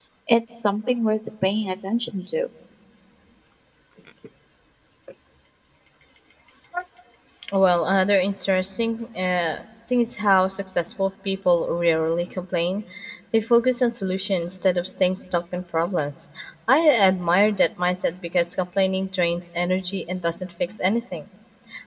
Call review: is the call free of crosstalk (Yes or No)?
Yes